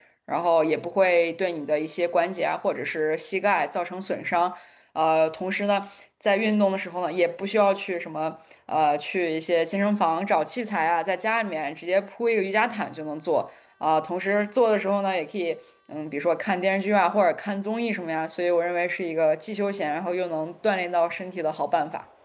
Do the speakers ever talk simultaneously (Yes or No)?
No